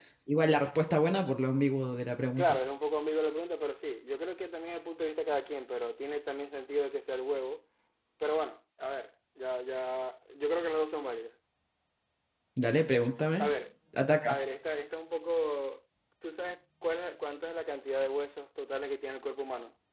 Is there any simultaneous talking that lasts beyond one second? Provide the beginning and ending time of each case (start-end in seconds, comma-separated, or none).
none